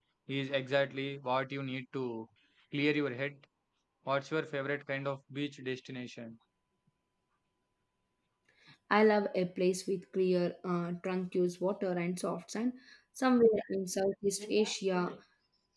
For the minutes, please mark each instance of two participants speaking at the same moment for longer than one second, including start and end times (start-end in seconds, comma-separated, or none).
none